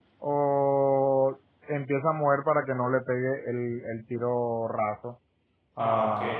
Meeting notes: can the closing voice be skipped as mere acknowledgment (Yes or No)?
No